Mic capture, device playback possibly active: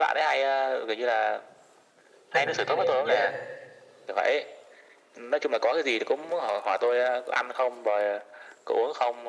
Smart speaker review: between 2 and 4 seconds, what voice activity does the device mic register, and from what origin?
both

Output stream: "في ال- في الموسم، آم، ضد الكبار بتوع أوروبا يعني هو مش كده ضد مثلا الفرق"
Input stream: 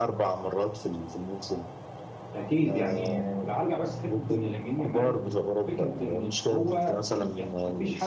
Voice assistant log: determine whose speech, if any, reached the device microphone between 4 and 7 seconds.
both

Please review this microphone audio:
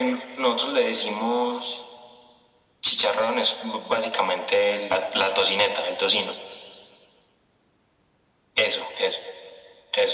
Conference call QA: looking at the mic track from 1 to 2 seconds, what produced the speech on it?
echo only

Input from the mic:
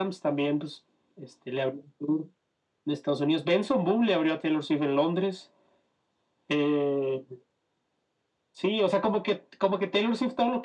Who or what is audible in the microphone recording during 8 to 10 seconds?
echo only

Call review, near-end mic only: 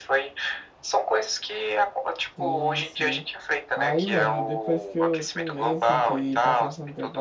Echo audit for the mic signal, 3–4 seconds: both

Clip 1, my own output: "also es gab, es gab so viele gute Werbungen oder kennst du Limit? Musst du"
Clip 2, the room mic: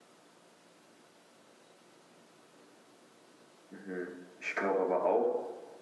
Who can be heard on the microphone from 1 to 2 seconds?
neither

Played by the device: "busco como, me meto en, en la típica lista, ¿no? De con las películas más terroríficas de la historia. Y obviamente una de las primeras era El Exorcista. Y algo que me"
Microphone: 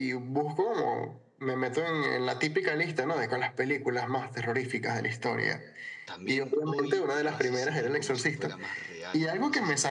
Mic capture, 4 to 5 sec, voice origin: echo only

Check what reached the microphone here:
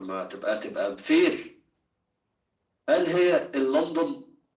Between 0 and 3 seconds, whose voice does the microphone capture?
echo only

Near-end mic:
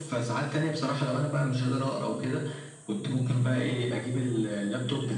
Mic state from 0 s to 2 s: echo only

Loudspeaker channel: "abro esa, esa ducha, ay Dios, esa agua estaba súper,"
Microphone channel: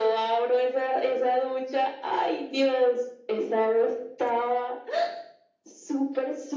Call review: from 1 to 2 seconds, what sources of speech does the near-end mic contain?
echo only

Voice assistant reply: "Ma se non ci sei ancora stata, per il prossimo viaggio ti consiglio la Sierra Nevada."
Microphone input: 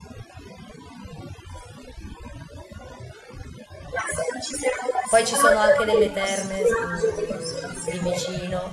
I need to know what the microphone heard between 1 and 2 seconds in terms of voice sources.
neither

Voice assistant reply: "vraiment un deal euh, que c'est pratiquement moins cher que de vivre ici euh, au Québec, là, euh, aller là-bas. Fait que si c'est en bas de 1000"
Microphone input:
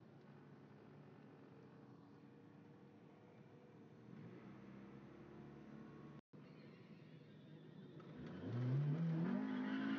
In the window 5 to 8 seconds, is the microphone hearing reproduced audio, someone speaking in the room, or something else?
neither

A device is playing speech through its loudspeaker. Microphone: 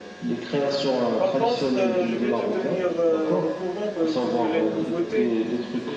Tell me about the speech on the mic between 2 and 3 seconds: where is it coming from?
both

